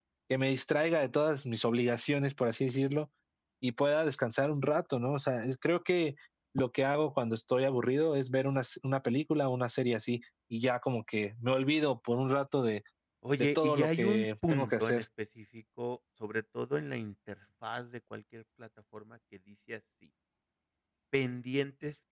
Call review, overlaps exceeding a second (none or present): present